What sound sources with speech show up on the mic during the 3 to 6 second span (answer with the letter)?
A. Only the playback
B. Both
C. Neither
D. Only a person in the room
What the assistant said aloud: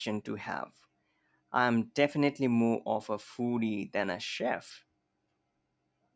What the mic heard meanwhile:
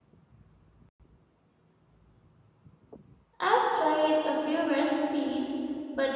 D